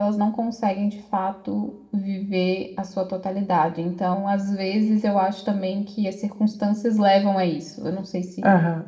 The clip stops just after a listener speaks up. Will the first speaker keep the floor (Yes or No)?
No